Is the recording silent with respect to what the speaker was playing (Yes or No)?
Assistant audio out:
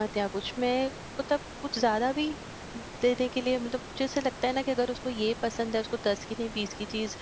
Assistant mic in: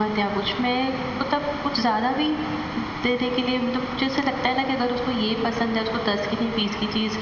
No